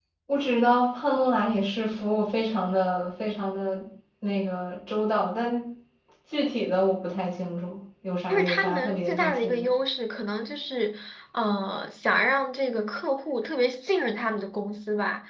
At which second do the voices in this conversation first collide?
8 s

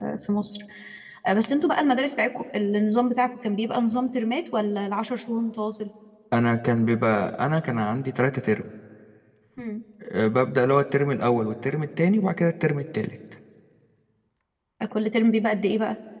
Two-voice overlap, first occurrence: none

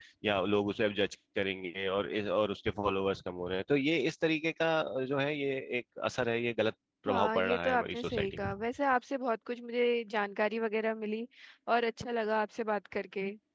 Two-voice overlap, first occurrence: 7 s

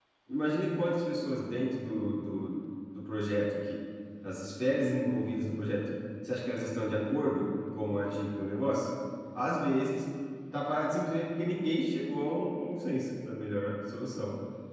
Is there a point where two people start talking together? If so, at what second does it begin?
none

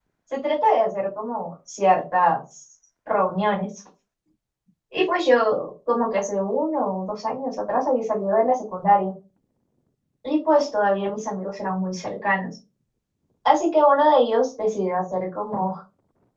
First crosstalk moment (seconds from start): none

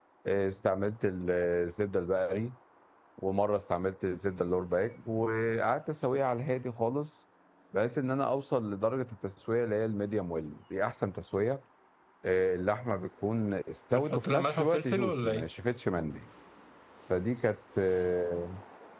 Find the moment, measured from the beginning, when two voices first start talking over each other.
14 s

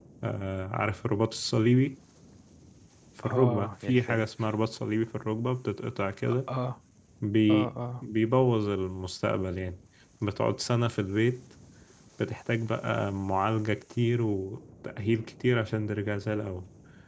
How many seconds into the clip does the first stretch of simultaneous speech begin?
3 s

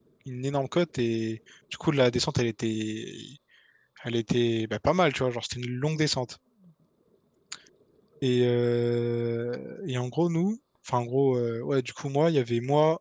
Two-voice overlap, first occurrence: none

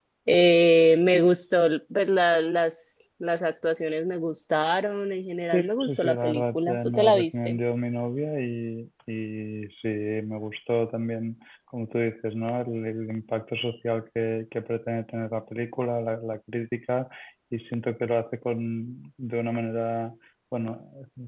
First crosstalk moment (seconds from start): 6 s

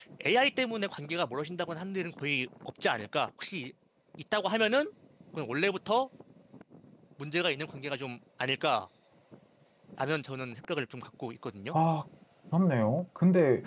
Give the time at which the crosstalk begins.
none

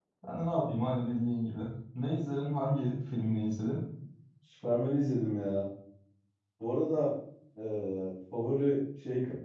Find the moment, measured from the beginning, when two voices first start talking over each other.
none

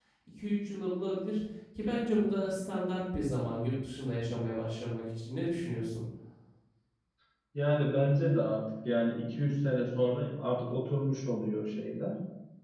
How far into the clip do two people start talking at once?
none

